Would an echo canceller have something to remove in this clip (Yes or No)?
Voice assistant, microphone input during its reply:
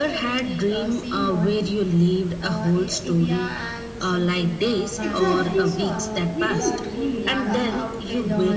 Yes